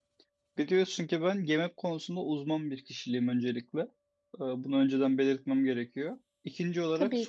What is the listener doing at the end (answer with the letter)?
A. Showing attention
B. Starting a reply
A